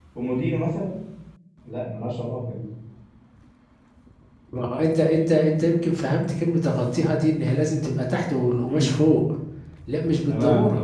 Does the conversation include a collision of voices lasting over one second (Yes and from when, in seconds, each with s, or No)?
No